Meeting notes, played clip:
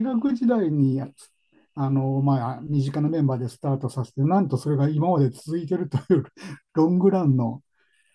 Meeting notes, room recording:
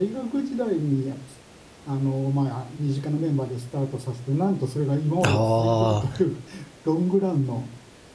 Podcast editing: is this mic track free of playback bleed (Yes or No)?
No